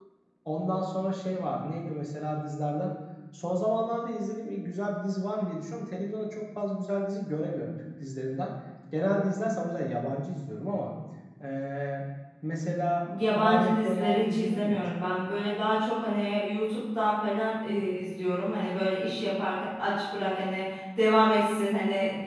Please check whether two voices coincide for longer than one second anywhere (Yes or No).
Yes